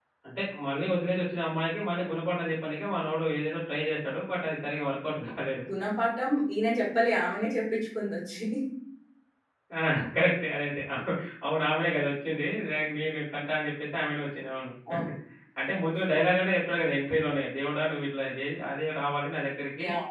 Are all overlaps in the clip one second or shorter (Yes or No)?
Yes